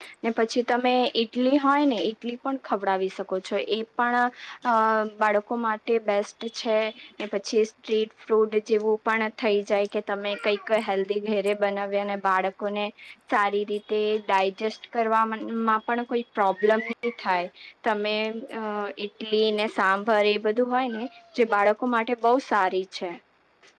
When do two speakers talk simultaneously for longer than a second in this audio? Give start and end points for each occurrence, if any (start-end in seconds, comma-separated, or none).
none